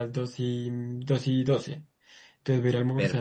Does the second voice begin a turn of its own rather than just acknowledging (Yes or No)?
No